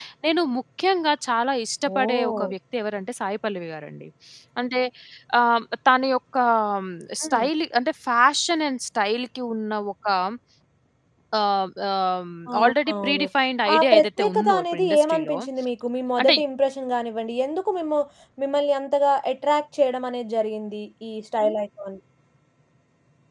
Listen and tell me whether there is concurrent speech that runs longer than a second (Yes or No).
Yes